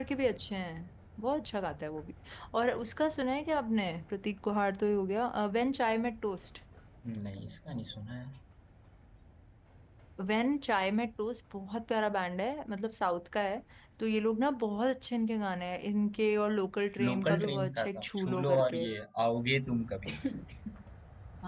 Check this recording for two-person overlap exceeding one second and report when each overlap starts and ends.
17.0-18.9

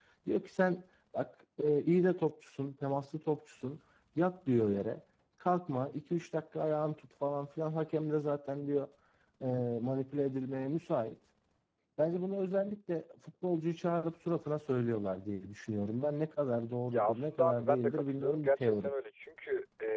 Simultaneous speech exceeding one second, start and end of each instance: 16.9-18.9

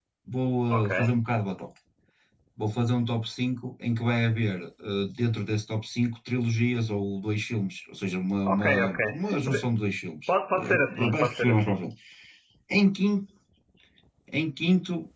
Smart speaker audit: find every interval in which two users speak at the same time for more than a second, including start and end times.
8.5-9.7, 10.3-11.8

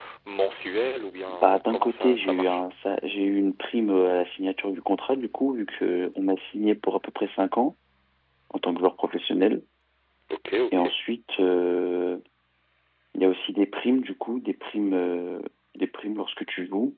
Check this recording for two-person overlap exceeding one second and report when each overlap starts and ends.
1.3-2.6

